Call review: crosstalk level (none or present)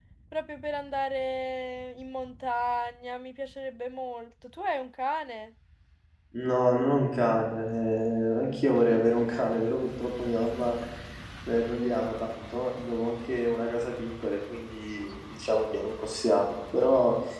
none